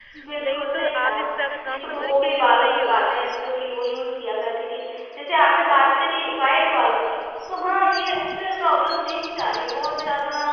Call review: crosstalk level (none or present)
present